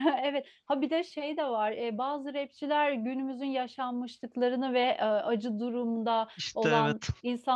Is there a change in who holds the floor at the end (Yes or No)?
No